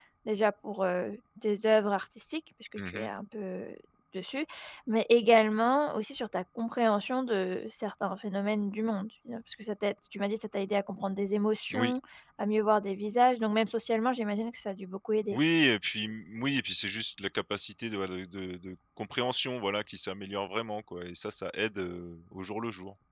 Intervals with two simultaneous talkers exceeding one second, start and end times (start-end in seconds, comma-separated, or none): none